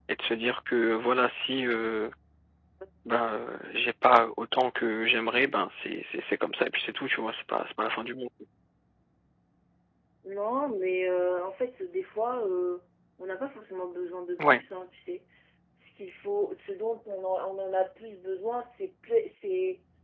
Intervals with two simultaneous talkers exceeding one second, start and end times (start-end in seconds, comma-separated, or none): none